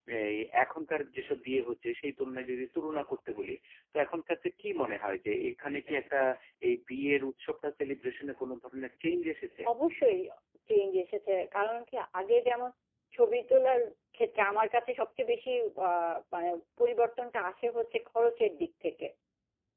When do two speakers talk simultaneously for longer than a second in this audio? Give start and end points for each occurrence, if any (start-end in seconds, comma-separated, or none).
none